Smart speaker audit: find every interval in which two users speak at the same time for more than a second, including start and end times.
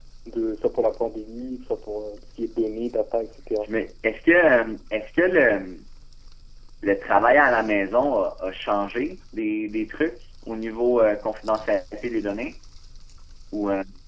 none

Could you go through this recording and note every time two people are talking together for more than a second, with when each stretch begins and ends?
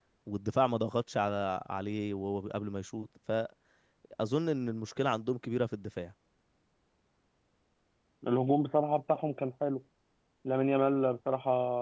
none

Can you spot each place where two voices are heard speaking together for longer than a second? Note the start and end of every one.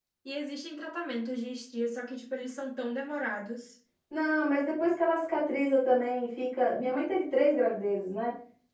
none

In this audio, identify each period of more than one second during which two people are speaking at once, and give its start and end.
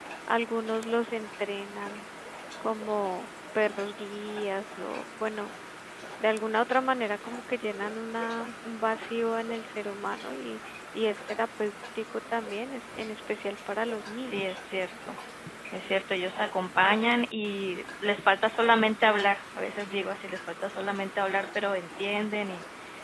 none

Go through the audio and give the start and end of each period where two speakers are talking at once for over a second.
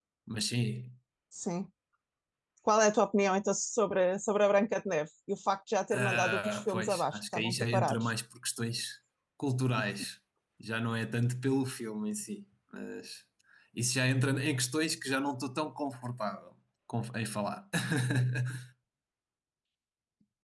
5.9-8.1

